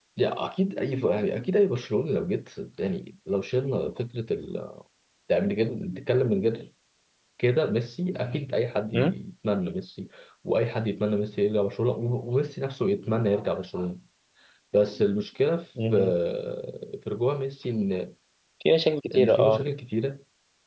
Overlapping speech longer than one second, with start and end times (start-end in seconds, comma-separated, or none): none